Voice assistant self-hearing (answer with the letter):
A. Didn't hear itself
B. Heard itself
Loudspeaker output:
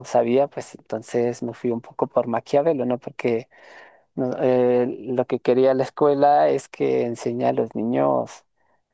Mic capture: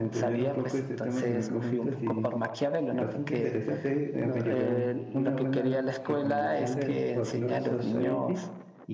B